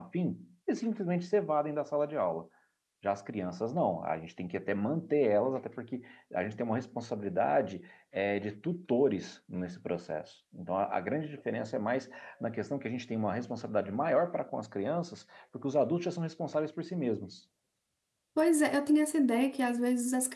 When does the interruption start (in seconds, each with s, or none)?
none